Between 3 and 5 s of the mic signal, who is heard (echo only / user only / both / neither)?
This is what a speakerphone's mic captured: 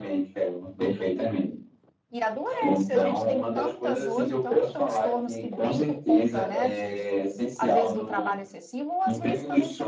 both